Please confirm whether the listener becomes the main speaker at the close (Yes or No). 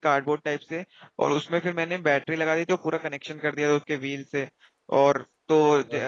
No